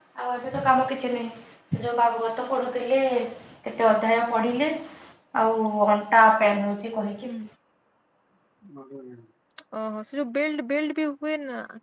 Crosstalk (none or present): none